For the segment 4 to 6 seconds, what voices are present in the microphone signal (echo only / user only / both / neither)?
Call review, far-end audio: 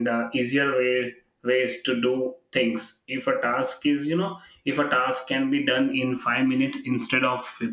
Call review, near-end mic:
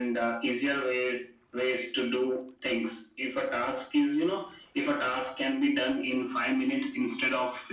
echo only